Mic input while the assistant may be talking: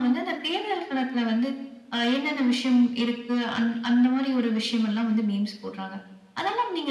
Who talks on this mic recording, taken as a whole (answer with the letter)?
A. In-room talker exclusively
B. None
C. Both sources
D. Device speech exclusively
D